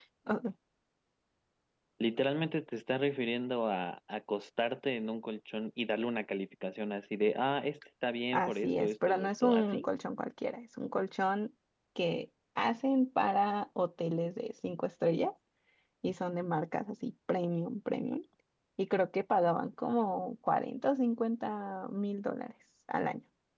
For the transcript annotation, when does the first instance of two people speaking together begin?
8.3 s

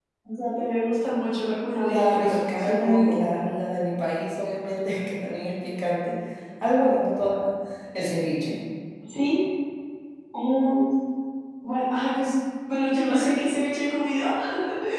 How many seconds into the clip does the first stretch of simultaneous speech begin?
1.8 s

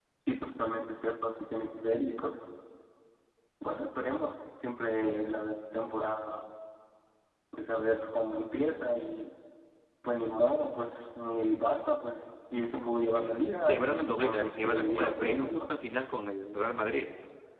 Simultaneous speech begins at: 13.6 s

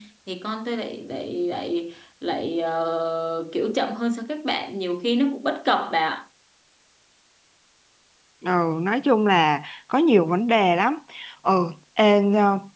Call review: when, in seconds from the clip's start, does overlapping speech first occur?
none

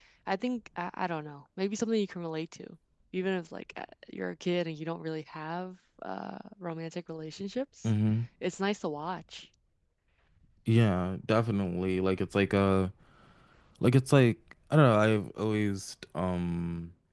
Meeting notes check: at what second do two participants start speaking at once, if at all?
none

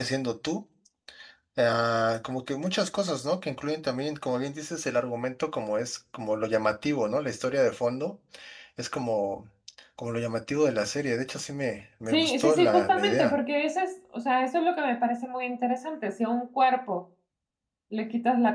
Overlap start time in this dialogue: 12.1 s

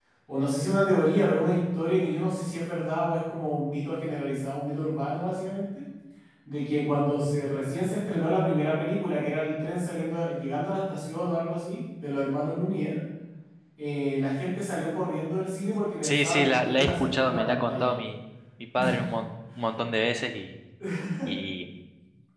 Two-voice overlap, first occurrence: 16.0 s

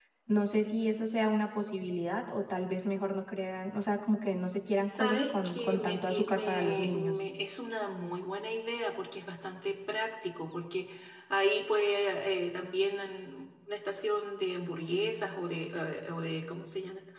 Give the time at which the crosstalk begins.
4.9 s

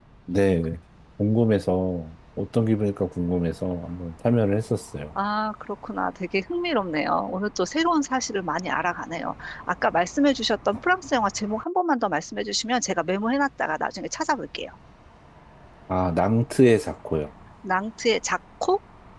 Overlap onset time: none

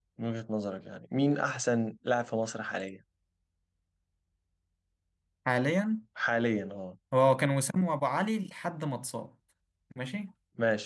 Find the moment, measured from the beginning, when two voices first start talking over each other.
none

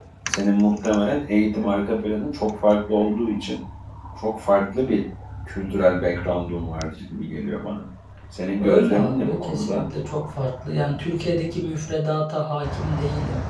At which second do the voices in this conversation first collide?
8.6 s

